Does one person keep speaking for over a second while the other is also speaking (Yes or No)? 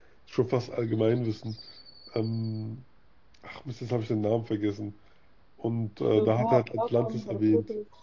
Yes